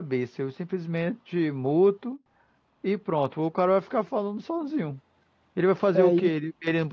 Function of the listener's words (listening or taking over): listening